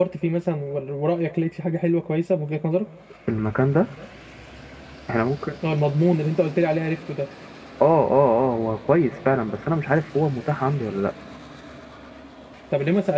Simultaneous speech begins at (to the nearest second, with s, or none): none